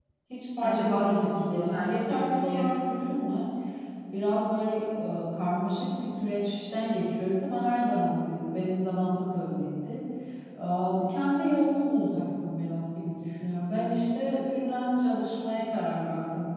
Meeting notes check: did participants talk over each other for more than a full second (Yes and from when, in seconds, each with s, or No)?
Yes, from 0.6 s